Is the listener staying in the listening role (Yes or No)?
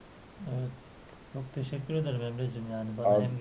Yes